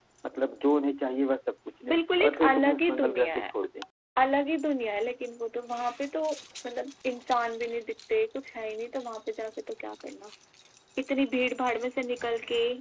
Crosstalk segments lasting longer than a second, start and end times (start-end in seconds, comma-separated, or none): 1.9-3.5